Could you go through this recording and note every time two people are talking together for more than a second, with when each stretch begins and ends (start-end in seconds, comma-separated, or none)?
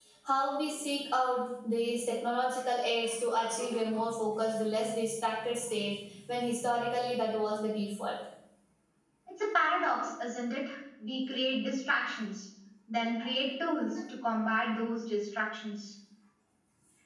none